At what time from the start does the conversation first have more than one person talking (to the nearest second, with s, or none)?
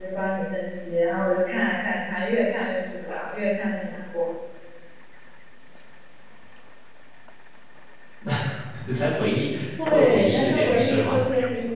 10 s